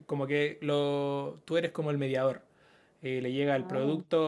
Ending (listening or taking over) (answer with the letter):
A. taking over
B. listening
B